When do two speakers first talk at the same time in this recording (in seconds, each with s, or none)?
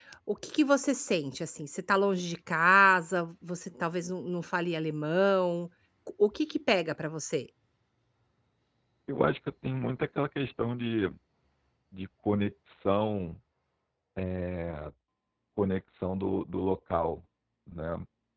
none